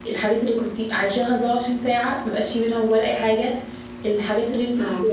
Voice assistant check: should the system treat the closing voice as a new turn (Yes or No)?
No